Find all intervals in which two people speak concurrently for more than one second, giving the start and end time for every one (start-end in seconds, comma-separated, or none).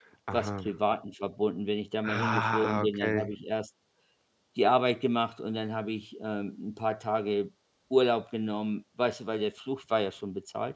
2.0-3.3